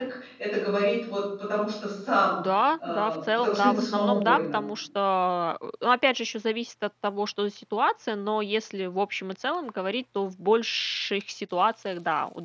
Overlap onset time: 2.9 s

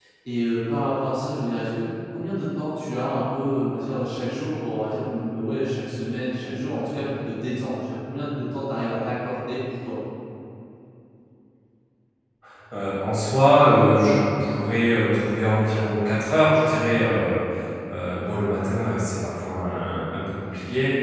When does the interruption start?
none

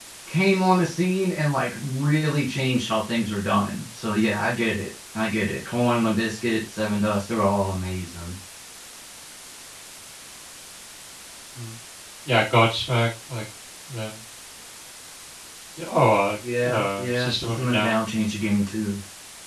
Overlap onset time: 16.4 s

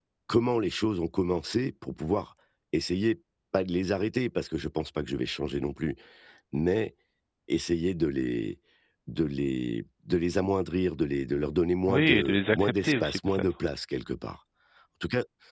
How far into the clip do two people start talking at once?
11.9 s

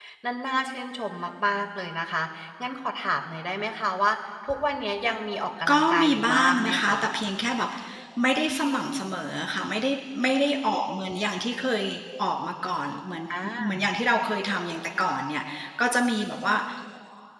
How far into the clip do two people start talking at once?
5.7 s

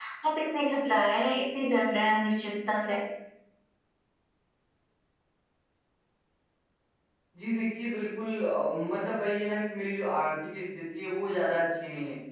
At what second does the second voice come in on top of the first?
none

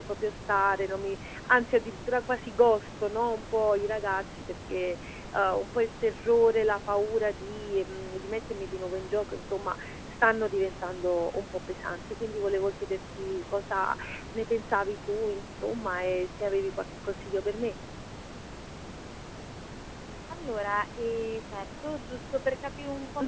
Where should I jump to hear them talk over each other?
none

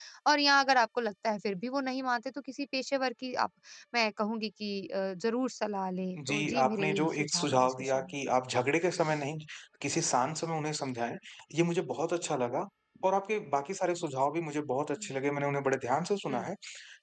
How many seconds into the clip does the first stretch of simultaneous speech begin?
6.2 s

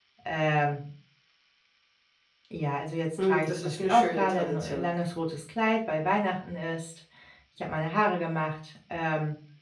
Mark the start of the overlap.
3.2 s

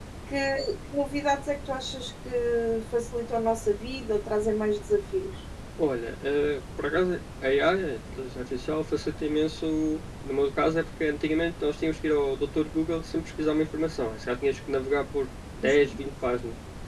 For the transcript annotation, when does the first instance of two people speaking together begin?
none

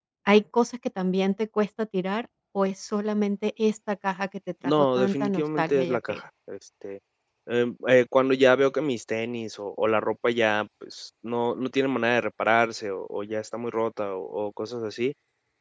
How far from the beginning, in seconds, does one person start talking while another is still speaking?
4.6 s

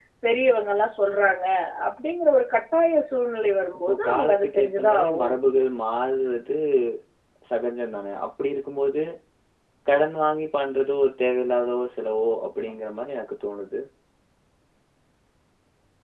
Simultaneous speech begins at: 3.9 s

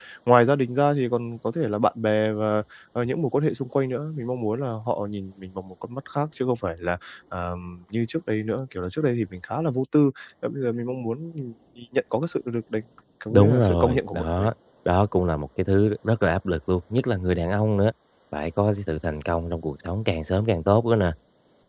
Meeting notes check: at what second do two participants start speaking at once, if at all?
13.3 s

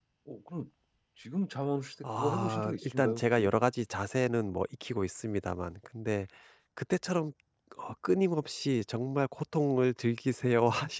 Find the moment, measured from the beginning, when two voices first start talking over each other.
2.0 s

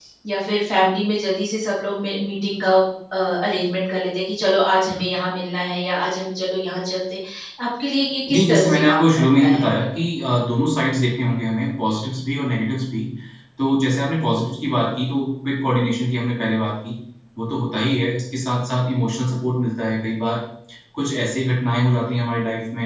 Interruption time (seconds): 8.3 s

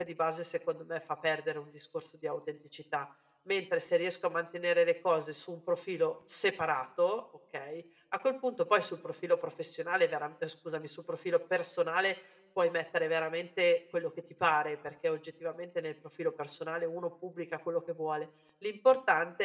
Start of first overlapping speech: none

